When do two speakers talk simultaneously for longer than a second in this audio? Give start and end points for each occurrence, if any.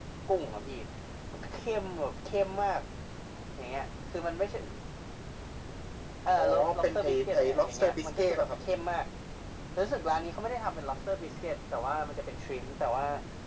6.4-8.6

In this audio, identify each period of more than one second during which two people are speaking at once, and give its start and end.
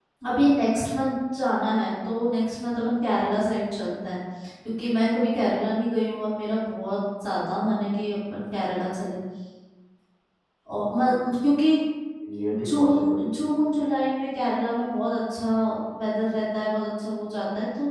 12.5-13.9

